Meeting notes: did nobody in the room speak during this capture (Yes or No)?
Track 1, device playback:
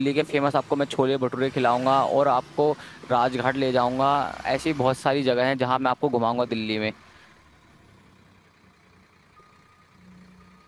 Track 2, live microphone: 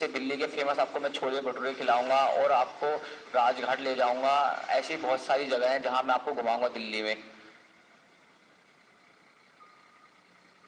Yes